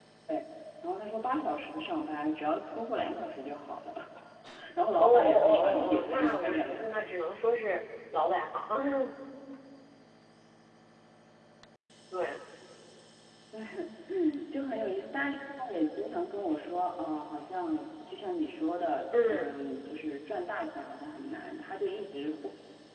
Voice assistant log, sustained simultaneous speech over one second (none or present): present